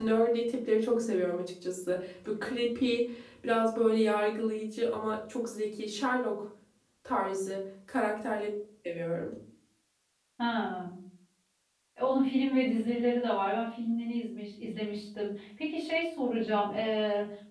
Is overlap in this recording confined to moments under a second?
Yes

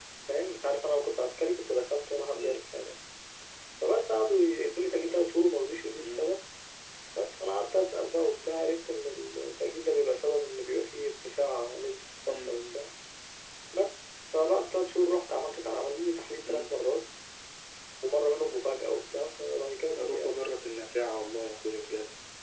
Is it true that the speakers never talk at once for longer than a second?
Yes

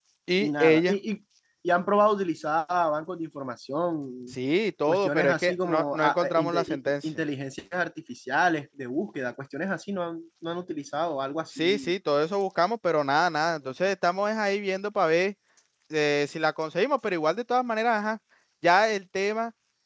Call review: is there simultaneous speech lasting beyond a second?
Yes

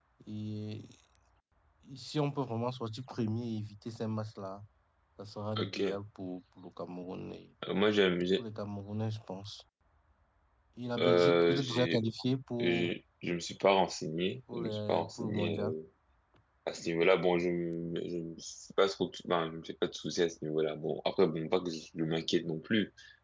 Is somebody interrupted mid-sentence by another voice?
Yes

